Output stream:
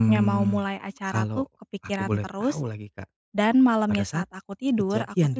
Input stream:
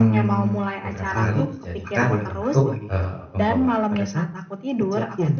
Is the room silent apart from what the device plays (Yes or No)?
No